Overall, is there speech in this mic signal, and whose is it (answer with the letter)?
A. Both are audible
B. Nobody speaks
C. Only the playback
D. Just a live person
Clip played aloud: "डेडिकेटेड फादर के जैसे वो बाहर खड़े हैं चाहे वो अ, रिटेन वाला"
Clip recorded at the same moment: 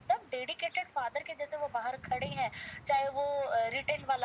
C